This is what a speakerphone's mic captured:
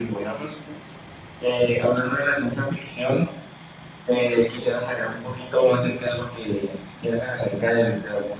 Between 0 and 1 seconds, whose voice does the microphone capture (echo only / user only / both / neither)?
echo only